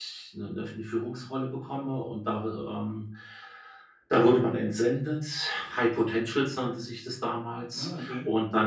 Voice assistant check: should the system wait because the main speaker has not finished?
Yes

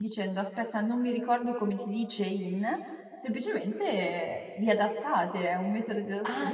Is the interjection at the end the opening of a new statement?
Yes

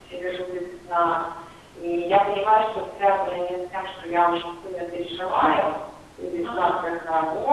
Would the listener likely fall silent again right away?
Yes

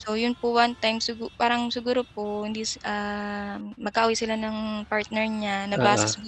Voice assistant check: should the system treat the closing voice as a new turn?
No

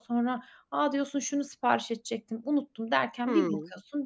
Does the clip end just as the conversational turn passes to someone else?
Yes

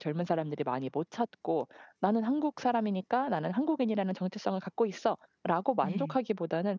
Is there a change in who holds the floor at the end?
No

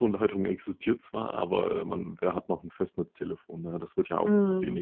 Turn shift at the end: Yes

